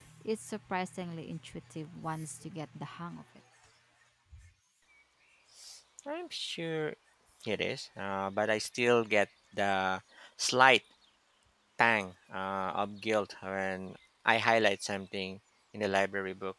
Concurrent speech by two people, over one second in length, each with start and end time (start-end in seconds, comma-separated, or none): none